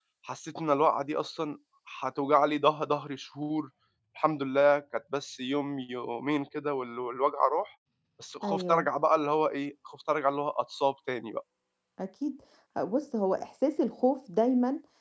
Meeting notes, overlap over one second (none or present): none